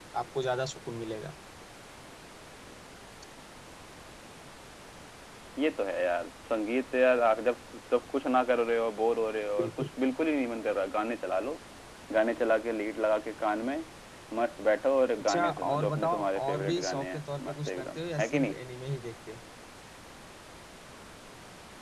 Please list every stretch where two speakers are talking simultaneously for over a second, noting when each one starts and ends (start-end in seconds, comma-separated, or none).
15.2-18.6